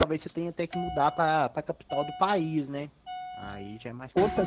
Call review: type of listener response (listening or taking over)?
taking over